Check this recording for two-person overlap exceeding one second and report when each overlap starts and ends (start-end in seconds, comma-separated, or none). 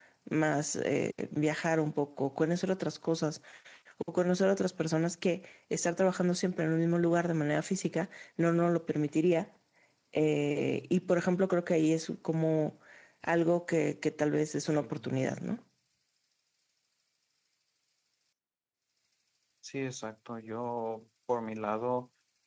none